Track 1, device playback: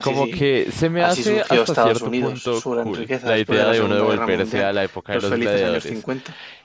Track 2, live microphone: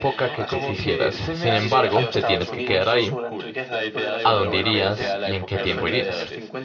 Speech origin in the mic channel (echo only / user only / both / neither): both